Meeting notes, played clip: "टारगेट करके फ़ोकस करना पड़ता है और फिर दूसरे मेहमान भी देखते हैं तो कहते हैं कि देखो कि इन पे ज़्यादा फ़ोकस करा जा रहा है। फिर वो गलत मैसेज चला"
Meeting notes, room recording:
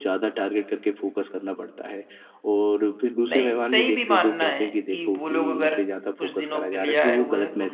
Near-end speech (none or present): present